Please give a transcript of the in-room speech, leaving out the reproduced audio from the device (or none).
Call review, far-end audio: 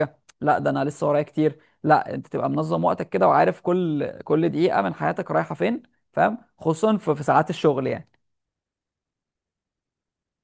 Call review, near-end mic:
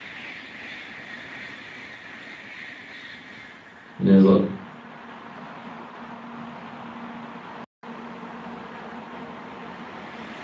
بالظبط